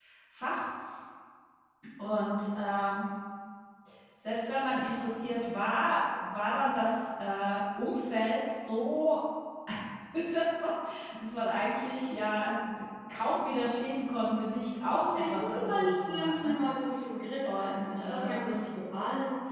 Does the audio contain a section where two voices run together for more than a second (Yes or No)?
Yes